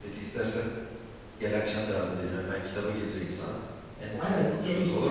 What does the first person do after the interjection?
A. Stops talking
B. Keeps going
A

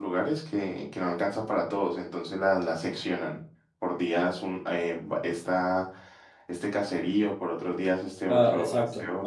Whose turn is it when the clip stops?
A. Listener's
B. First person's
A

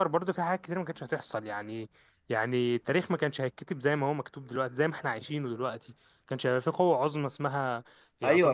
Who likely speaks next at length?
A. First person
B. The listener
B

